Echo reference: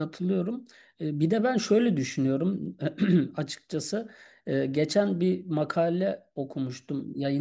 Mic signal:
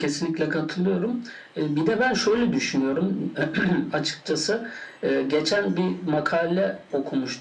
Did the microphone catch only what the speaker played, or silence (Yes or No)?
Yes